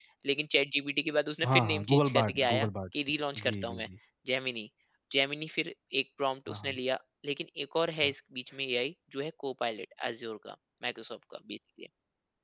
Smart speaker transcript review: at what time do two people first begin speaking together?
1 s

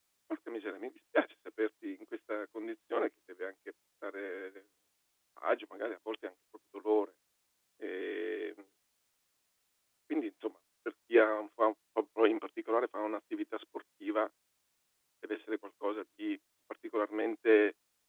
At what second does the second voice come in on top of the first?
none

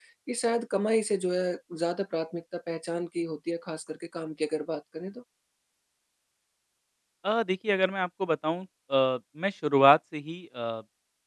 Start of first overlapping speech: none

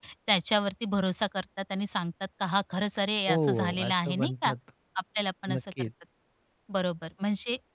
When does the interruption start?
3 s

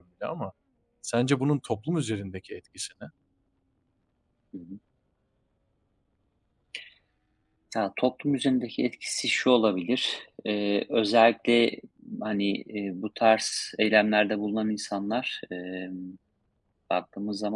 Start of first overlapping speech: none

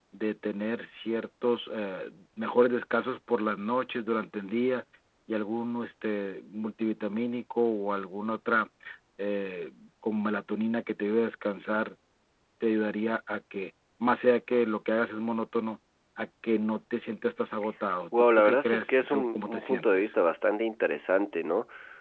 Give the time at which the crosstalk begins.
18 s

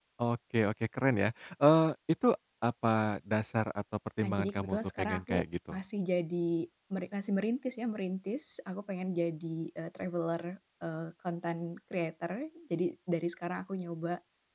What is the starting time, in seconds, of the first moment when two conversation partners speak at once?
4 s

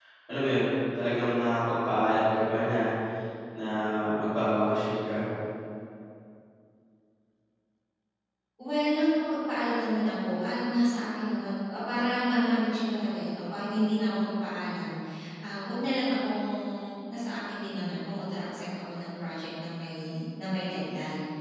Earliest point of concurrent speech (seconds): none

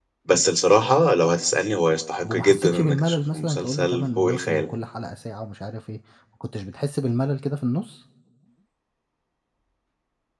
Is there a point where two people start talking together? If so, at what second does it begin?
2 s

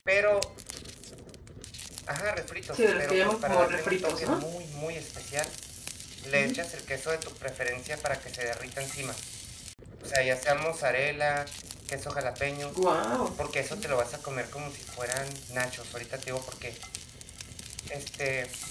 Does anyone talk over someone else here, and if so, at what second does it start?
3 s

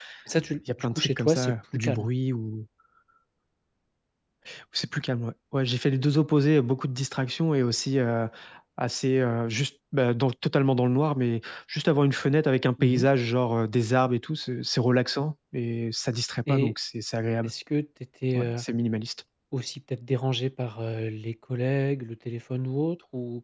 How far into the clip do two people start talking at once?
1 s

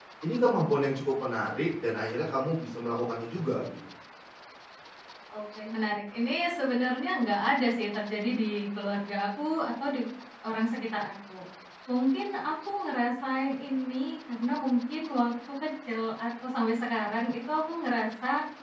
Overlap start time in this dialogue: none

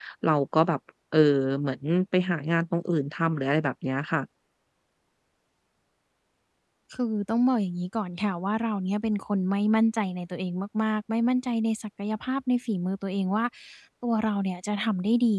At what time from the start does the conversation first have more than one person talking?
none

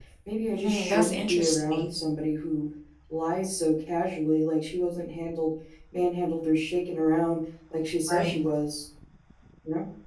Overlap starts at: 1 s

